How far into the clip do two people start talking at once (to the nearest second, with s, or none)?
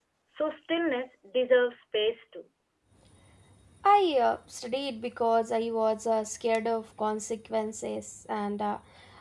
none